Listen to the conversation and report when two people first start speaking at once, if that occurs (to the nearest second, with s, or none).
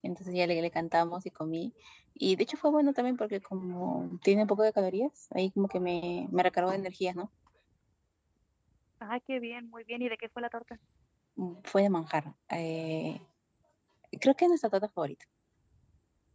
none